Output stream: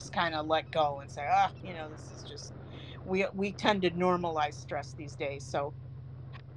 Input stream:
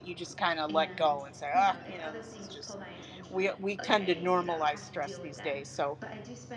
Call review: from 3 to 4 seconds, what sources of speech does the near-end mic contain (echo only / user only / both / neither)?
both